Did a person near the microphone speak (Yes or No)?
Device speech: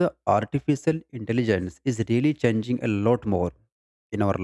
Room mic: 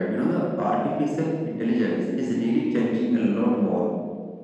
No